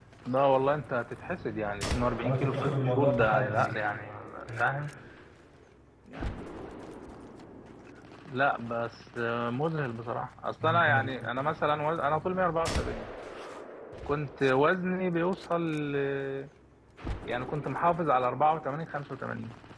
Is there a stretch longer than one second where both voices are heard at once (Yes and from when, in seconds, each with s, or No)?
Yes, from 2.2 s